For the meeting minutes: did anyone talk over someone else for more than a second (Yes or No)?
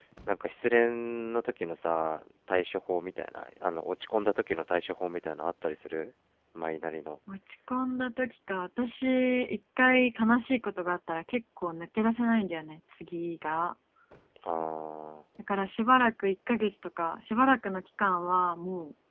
No